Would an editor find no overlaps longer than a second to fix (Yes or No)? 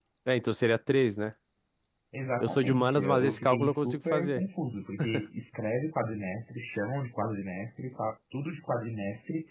No